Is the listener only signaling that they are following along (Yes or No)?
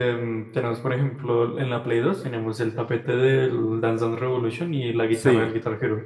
No